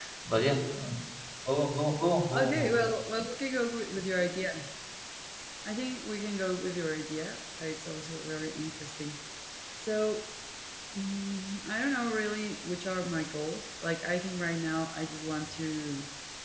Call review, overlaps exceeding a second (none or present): none